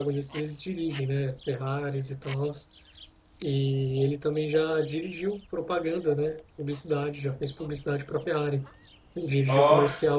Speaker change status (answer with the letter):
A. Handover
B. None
B